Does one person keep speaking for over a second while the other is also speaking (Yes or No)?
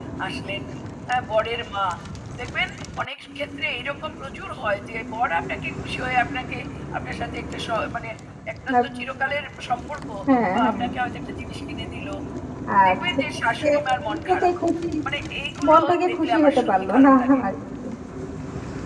Yes